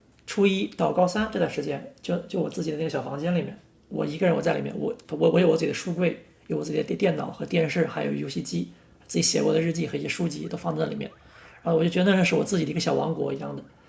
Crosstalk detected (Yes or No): No